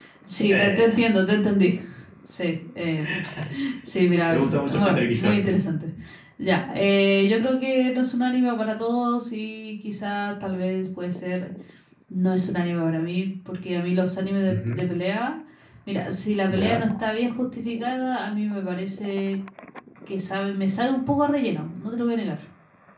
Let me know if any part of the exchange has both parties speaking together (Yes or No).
Yes